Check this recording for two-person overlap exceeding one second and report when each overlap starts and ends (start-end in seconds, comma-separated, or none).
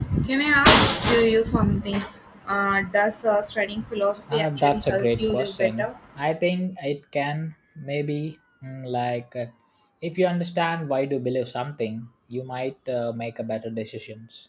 4.3-5.9